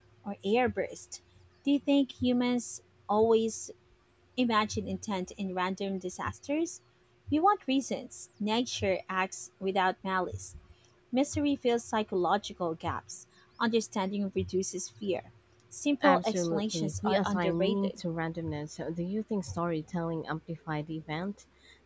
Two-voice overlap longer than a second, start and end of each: 16.0-18.0

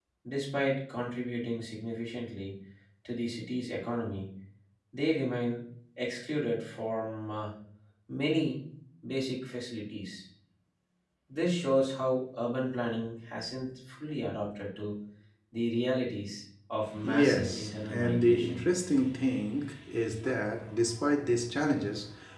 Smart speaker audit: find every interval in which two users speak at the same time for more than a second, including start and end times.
17.0-18.6

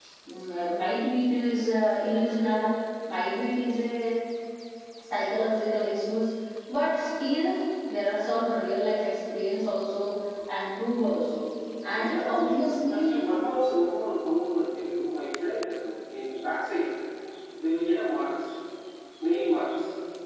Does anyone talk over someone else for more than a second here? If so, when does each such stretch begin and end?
12.0-13.2

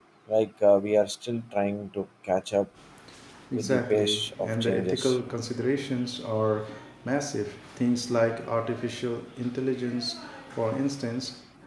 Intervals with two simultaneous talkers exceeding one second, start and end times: 3.5-5.2

